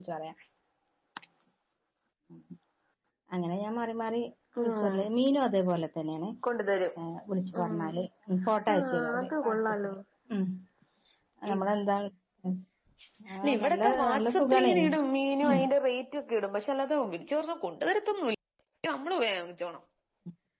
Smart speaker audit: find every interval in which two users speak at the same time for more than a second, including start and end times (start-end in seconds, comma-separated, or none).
8.7-9.9, 13.4-14.7